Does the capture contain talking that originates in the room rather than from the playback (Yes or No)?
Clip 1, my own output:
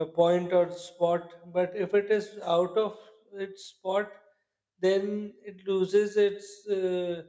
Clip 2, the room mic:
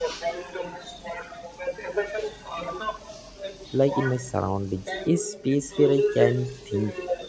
Yes